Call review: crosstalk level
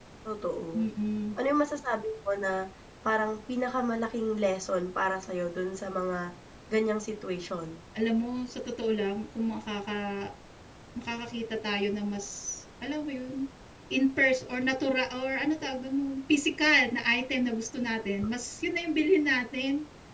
none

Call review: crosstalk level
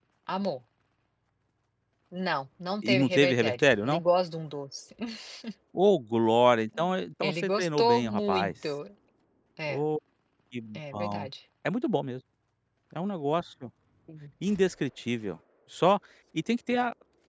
present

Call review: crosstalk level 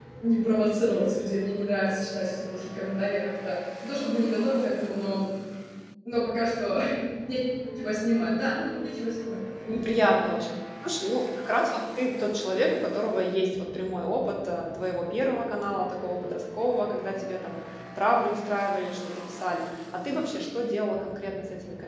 none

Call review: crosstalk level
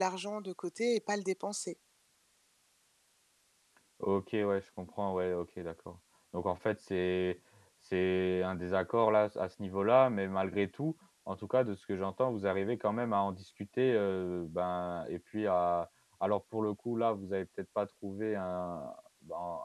none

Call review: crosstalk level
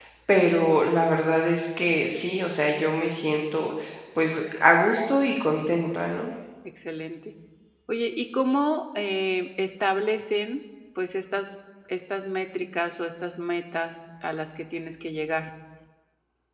none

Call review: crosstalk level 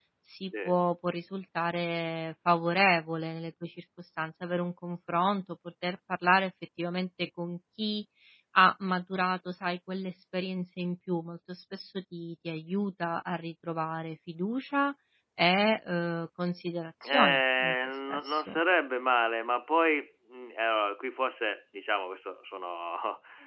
present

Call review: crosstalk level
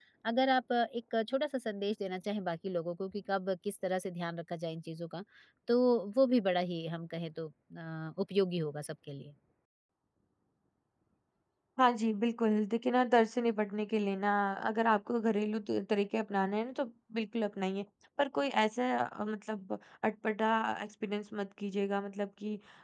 none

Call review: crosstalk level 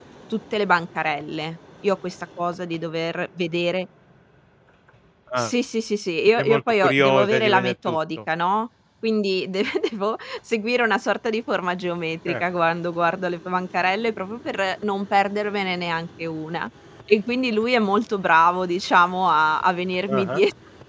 present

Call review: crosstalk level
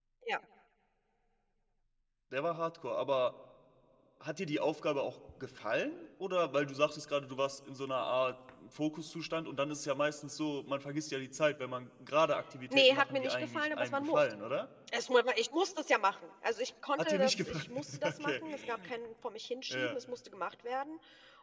present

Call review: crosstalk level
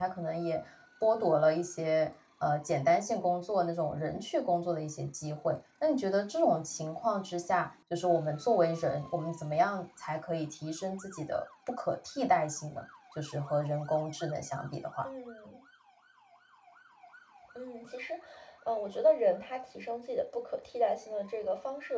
none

